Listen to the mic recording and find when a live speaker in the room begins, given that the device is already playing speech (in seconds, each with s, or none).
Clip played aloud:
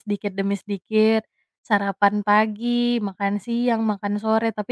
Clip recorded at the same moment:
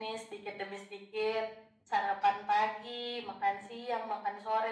none